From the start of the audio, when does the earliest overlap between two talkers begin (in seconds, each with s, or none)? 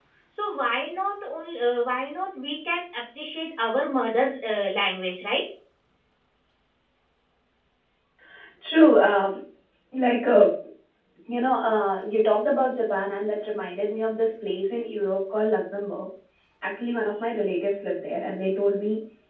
none